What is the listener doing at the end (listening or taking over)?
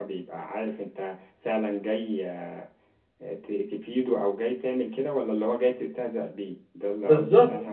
taking over